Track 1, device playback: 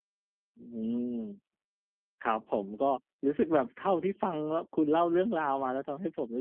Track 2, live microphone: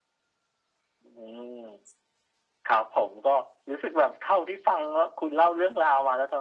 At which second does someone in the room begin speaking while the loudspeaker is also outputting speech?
none

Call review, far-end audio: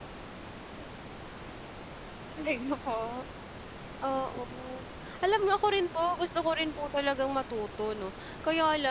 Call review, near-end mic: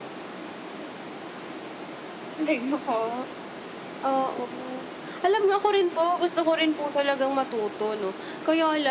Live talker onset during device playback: none

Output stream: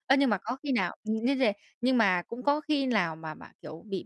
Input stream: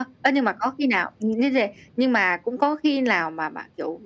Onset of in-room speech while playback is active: none

